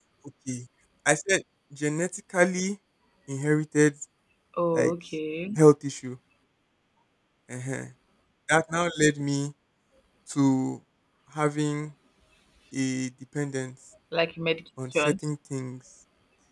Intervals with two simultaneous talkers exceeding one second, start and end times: none

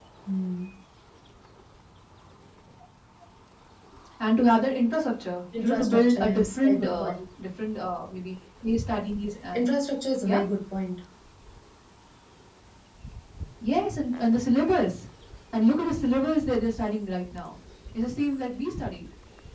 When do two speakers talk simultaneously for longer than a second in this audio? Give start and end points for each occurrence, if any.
5.6-7.2

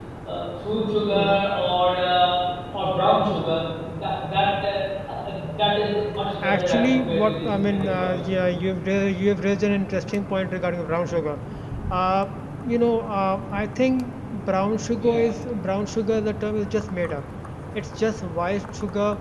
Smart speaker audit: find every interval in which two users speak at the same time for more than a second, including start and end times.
6.4-8.5

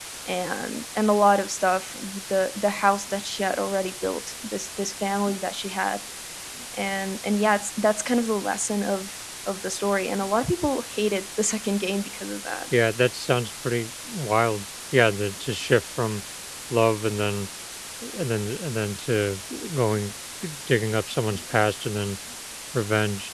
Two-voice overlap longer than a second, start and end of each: none

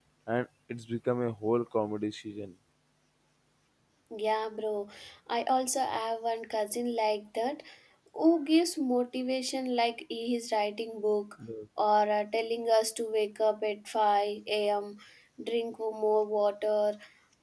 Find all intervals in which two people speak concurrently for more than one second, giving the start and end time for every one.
none

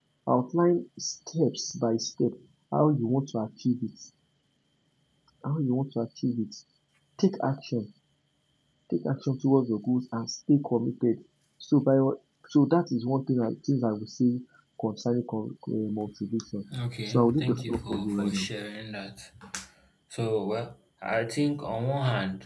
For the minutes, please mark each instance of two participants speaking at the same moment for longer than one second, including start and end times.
17.0-18.5

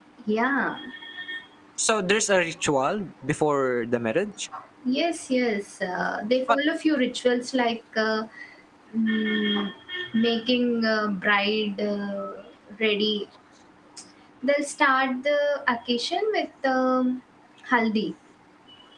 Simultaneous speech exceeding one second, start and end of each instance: none

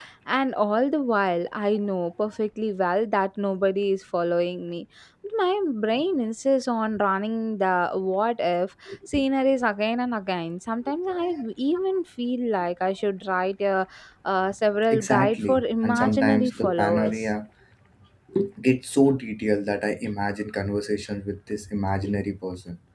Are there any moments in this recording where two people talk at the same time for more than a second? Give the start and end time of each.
14.9-17.2

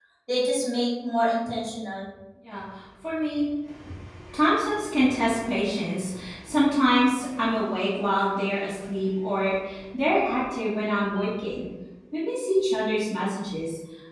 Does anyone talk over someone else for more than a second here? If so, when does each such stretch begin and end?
none

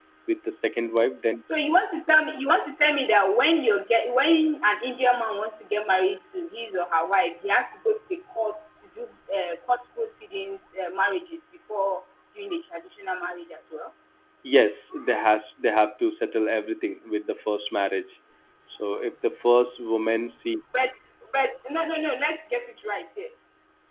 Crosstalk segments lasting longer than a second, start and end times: none

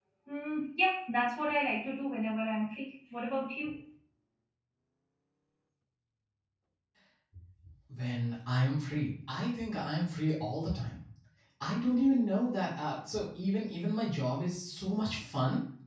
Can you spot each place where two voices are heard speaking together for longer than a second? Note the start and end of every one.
none

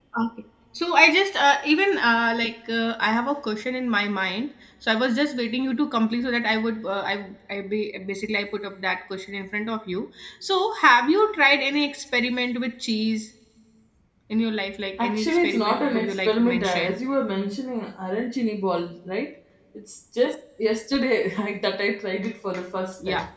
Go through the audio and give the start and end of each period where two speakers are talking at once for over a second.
15.0-17.0

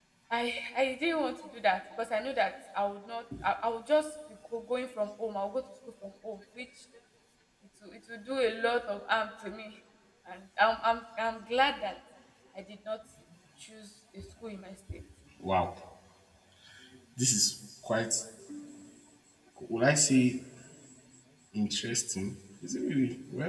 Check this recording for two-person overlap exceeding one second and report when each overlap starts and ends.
none

